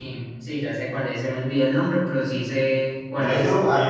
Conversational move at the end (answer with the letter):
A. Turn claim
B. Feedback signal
A